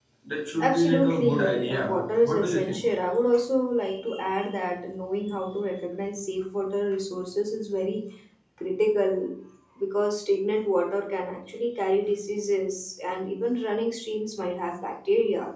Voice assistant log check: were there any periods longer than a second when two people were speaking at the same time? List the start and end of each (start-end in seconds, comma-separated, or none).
0.6-2.9